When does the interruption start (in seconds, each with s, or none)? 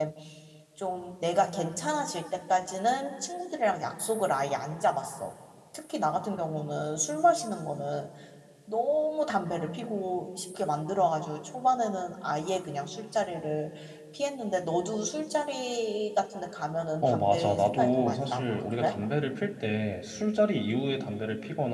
17.0 s